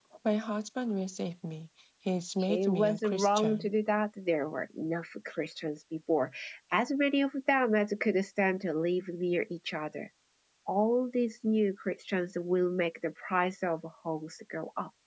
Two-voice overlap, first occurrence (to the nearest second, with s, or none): 2 s